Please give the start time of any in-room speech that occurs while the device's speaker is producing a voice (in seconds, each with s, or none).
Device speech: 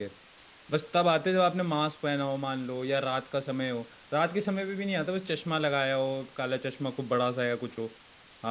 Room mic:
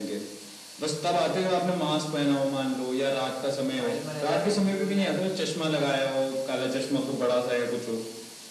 3.8 s